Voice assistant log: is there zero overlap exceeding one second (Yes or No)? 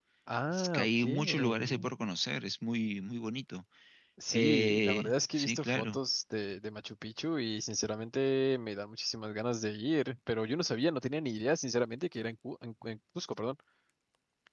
No